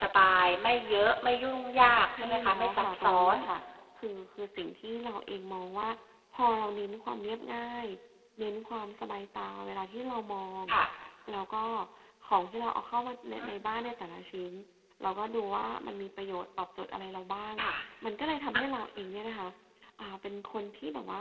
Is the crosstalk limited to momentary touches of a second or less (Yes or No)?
No